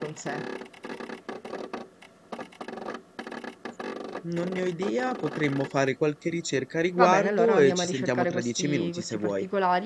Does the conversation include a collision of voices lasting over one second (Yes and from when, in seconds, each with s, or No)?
Yes, from 7.0 s